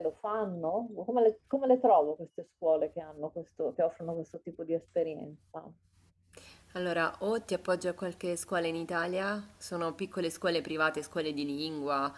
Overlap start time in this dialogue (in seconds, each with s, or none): none